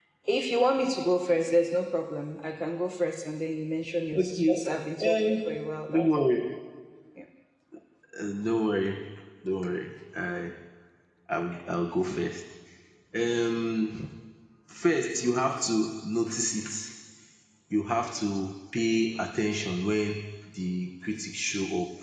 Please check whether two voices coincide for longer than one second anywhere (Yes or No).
No